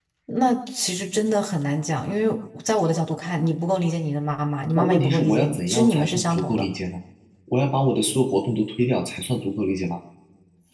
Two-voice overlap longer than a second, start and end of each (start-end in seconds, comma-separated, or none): 4.7-6.6